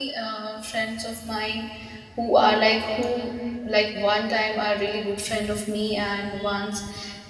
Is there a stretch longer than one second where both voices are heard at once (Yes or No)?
No